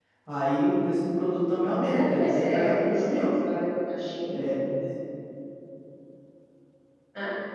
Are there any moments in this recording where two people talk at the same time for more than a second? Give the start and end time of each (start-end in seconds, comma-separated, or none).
1.8-3.3